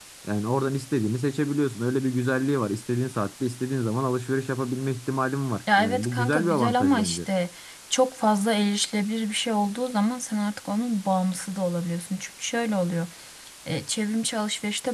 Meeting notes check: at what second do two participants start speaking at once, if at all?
6 s

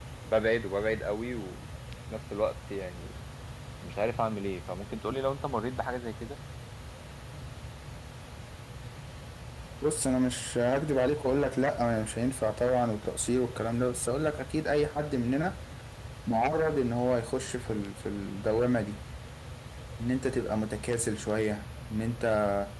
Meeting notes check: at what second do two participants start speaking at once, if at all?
none

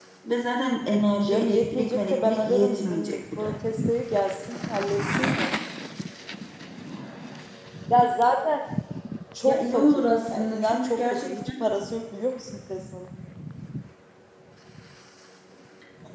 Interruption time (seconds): 1 s

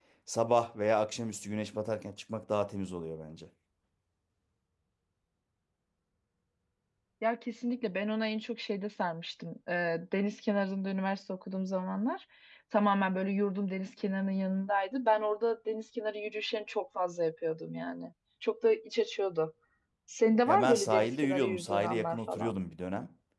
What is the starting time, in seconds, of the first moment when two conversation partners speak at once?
20 s

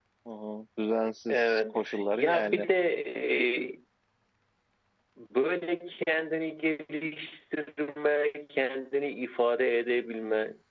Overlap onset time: 1 s

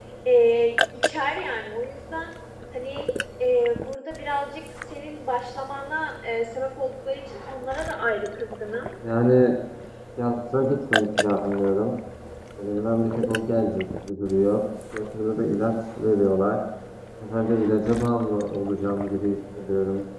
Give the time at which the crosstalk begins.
none

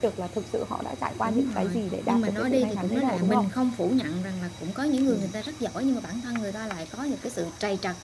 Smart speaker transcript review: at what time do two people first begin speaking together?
1 s

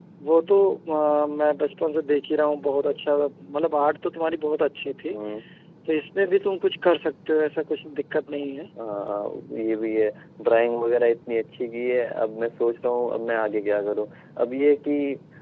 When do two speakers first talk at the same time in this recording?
none

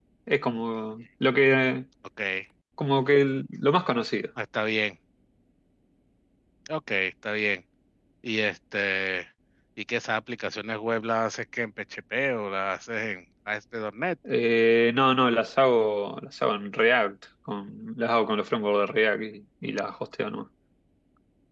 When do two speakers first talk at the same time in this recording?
none

